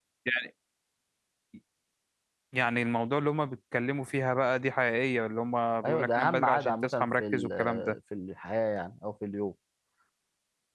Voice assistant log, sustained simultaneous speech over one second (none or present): present